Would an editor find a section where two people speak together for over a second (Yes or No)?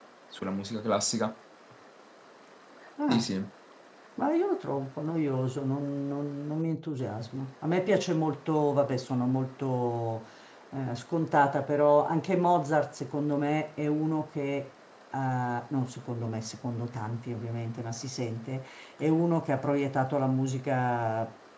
No